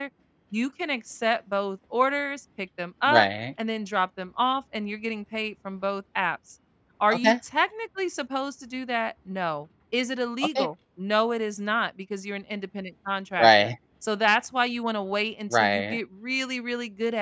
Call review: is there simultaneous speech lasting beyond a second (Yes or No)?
No